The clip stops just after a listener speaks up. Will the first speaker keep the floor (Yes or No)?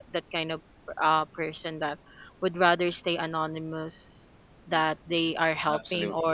Yes